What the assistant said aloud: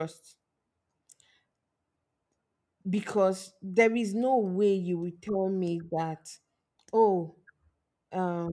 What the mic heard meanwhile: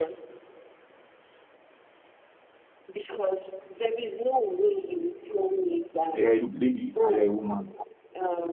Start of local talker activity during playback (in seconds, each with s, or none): 6.1 s